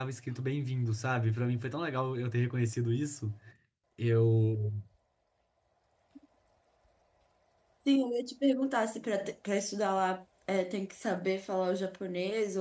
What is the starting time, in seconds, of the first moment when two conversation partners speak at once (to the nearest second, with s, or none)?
none